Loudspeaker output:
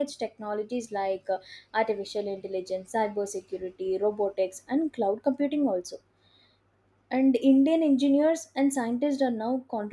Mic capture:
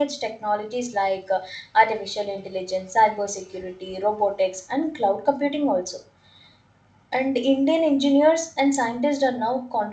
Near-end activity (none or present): none